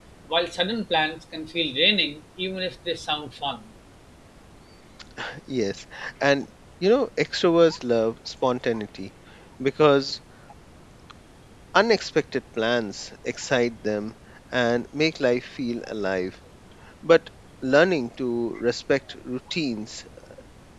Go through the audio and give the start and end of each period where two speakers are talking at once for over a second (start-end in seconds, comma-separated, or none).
none